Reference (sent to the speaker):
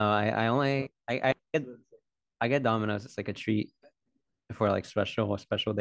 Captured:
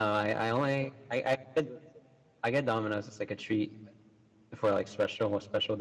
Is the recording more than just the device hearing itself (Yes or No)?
No